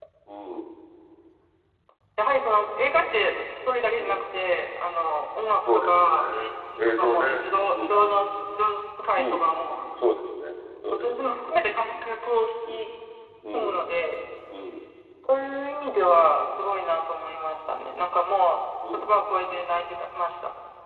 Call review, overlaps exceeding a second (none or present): present